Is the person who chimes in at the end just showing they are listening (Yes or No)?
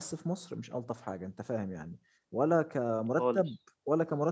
Yes